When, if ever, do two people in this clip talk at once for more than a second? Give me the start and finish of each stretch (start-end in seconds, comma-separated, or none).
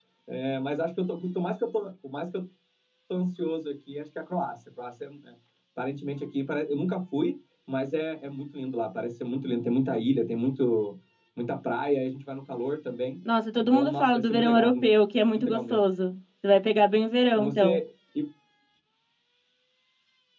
13.6-14.8